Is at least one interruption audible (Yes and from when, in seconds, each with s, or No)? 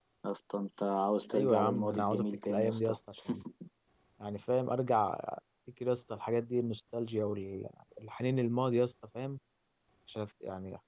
Yes, from 1.3 s